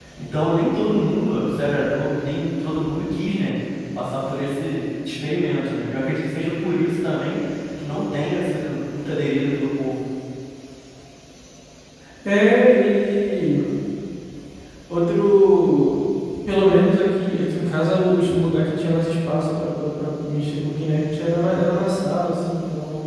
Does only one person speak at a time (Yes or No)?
Yes